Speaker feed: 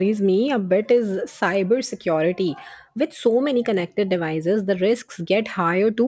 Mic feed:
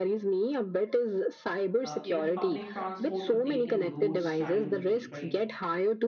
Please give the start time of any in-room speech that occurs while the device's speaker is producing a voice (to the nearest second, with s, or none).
2 s